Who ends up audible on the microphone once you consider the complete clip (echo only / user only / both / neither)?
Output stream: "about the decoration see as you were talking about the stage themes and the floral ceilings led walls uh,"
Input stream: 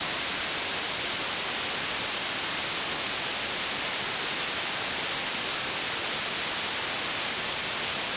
neither